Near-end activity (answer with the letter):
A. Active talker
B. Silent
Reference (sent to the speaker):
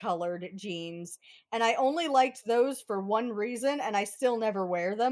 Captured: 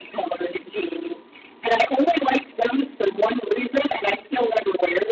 B